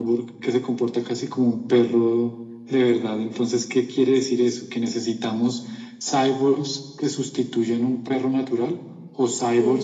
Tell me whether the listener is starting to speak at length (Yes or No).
No